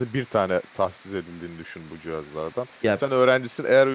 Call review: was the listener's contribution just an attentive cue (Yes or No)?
Yes